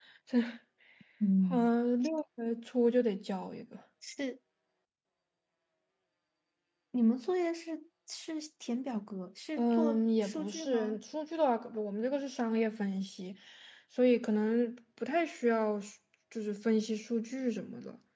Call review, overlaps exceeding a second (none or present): present